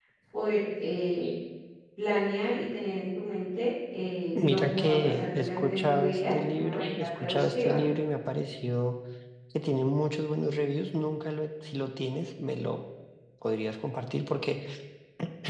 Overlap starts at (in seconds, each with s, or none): 4.3 s